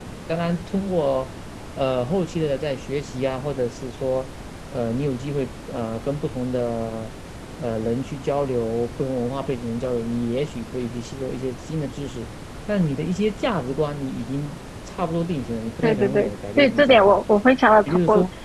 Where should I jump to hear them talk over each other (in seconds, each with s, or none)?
15.8 s